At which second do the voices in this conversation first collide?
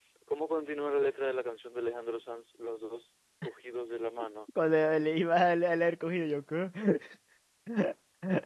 none

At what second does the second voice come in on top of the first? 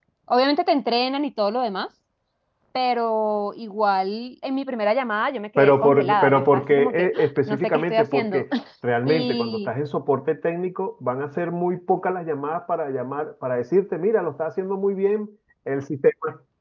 6 s

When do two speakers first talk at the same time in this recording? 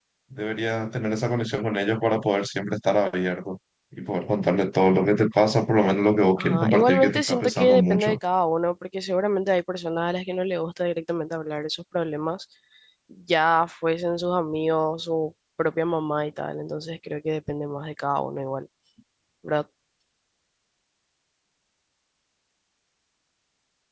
6 s

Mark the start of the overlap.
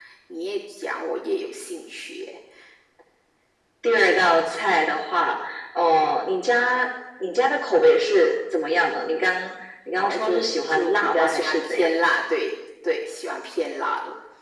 10 s

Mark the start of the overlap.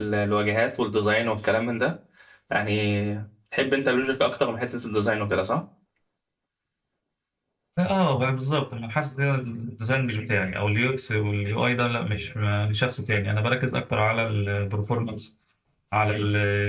none

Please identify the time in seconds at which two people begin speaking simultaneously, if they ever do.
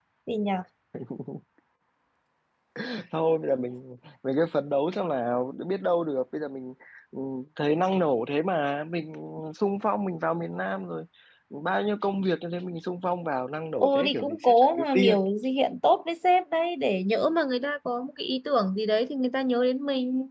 14 s

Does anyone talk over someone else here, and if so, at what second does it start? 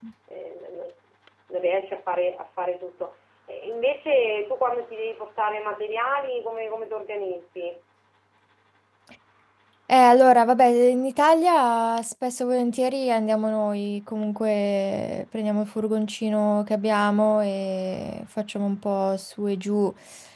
none

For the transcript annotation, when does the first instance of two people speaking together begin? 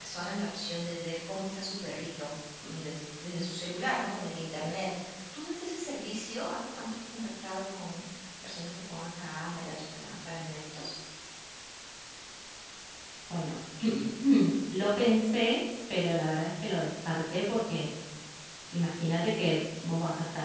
none

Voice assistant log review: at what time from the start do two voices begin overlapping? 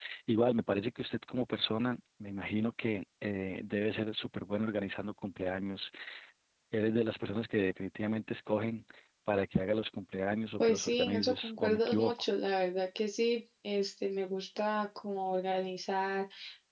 11 s

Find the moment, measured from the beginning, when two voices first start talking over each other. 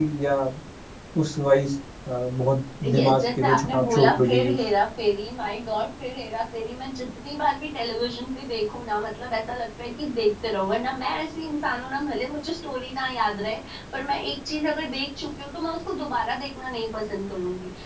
3 s

